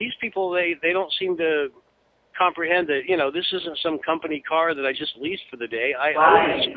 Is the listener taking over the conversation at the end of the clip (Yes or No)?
Yes